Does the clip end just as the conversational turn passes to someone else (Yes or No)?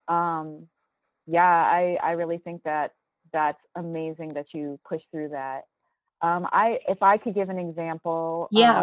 Yes